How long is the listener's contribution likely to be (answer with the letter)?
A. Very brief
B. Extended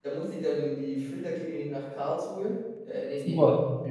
A